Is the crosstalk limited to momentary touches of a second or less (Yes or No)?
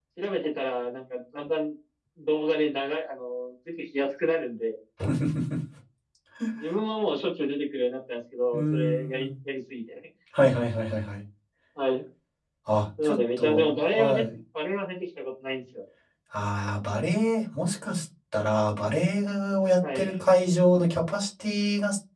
No